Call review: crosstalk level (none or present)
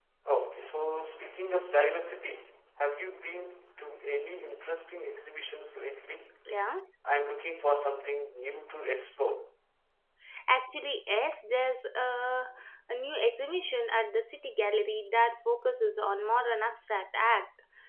none